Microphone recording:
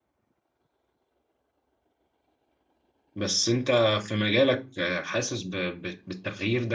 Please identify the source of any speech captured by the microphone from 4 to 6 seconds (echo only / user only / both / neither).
user only